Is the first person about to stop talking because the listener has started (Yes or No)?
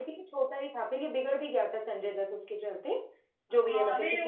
Yes